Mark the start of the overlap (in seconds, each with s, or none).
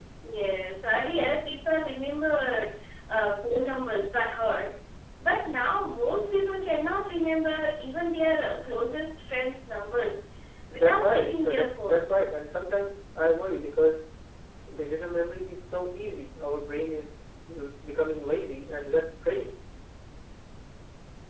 10.7 s